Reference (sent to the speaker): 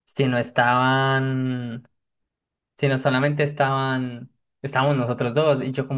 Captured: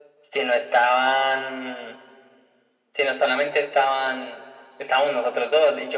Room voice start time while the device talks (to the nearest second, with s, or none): none